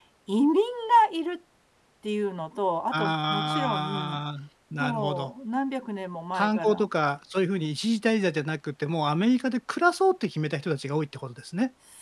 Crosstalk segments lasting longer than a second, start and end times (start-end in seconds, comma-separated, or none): 2.9-4.2